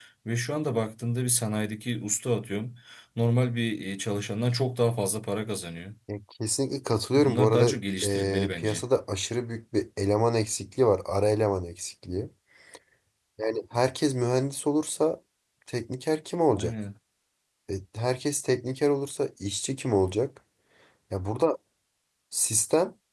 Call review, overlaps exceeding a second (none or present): present